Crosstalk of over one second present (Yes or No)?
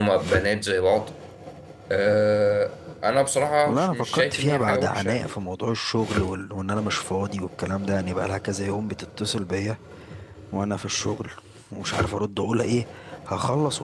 Yes